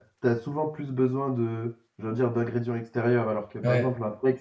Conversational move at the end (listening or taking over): listening